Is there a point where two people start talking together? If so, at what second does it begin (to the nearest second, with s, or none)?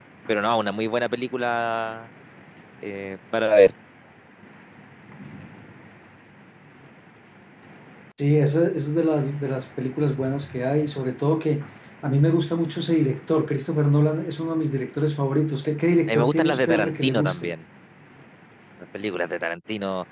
16 s